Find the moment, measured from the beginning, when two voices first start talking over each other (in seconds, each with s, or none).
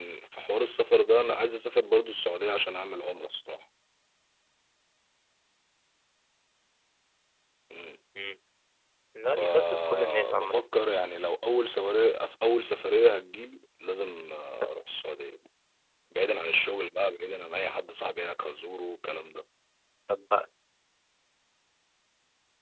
9.4 s